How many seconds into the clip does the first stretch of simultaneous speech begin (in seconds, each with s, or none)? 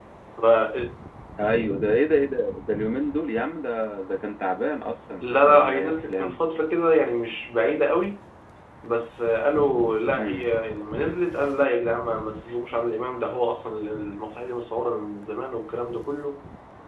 5.2 s